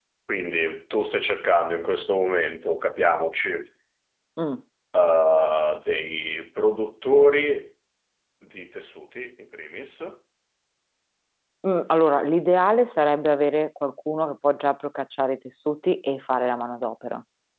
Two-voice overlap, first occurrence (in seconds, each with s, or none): none